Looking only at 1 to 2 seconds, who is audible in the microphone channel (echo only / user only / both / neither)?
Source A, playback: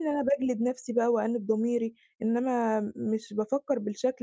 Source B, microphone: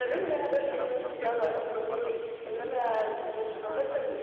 both